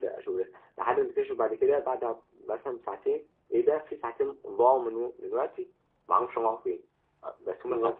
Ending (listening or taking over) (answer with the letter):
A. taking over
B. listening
B